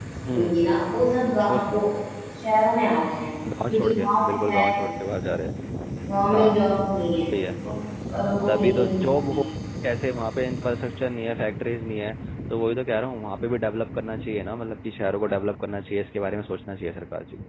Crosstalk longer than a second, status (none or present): present